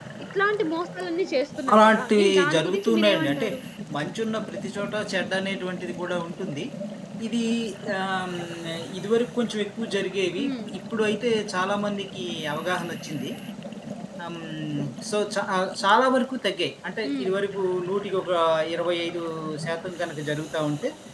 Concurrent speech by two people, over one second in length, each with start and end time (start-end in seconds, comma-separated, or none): 1.7-3.5